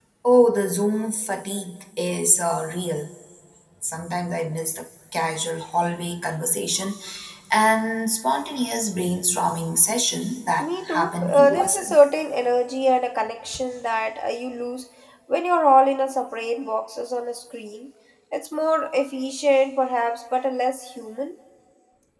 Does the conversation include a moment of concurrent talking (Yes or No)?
Yes